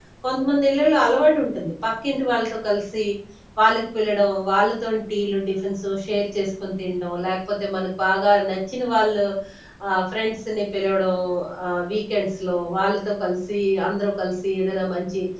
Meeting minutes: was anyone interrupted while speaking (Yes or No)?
No